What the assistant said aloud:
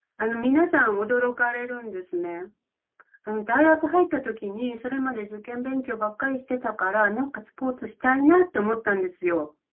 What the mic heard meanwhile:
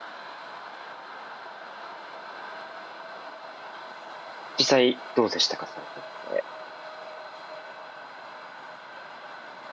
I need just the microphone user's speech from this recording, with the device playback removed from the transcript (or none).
実際どうでしたか、されてみて。